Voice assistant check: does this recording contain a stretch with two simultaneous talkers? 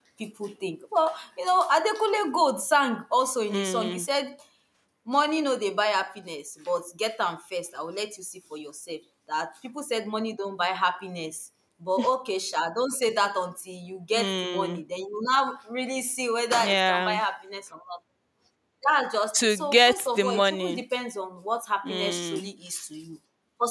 Yes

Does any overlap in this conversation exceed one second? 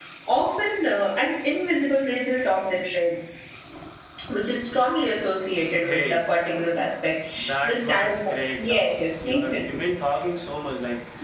Yes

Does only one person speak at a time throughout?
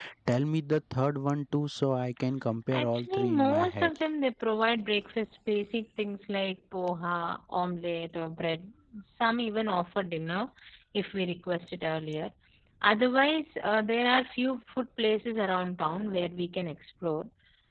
No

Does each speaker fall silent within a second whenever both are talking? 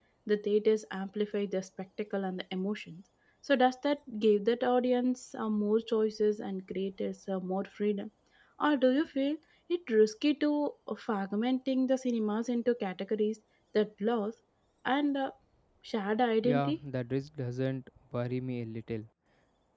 Yes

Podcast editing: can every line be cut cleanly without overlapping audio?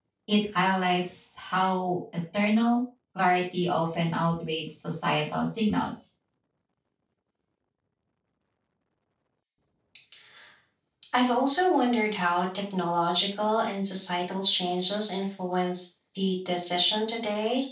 Yes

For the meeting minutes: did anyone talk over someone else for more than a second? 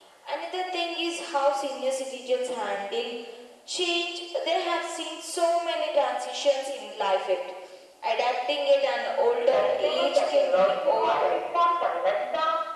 Yes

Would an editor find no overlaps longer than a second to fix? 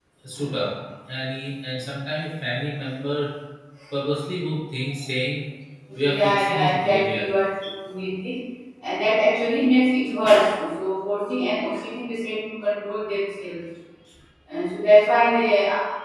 No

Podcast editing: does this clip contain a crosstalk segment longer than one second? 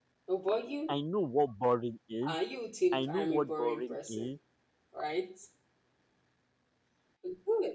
Yes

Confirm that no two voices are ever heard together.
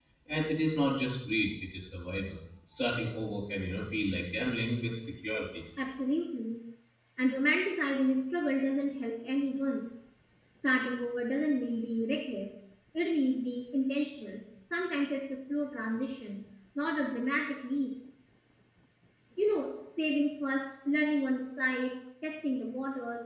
Yes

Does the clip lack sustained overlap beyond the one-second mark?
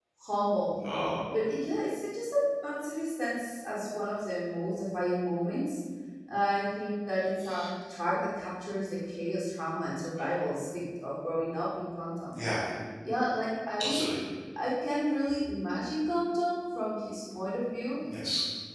Yes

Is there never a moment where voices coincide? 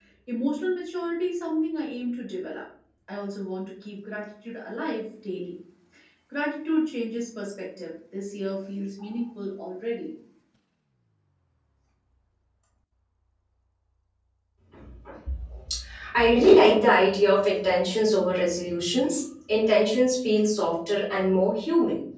Yes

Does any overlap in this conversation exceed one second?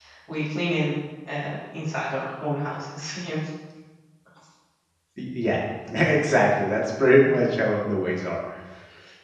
No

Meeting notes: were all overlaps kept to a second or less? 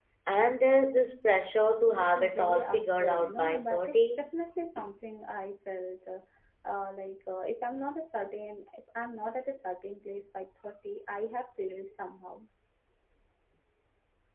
No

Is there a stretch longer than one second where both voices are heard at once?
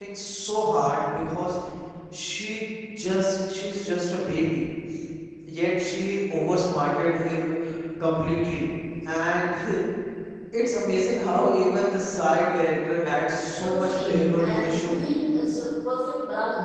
Yes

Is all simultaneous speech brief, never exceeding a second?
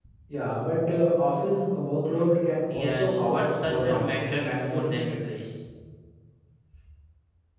No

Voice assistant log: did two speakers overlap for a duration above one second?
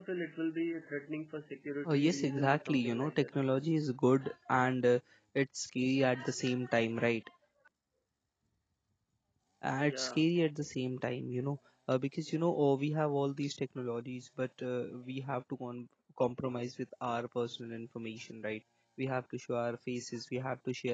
Yes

